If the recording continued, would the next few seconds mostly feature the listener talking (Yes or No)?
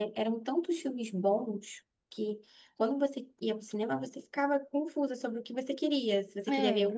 No